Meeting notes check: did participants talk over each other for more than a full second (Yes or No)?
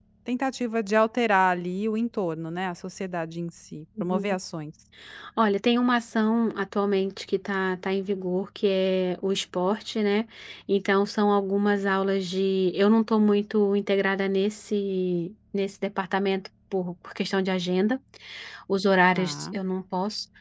No